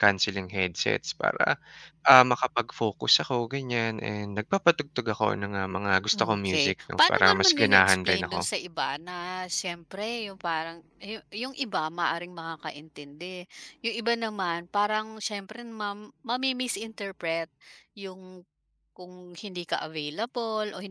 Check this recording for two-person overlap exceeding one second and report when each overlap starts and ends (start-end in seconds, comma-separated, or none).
6.1-8.4